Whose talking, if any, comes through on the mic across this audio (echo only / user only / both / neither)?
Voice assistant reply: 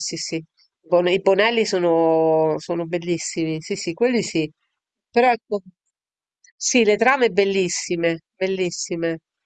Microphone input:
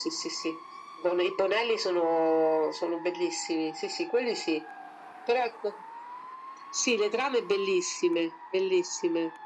echo only